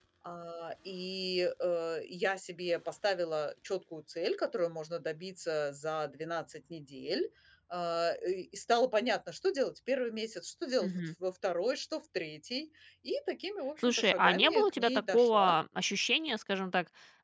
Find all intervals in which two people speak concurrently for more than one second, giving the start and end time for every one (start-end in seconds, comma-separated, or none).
13.8-15.6